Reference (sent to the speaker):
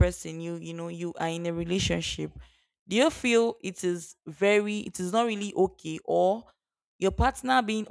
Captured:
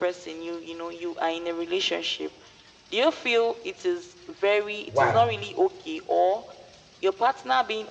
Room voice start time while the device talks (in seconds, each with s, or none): 4.9 s